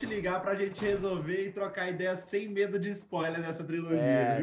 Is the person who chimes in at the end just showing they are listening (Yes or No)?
No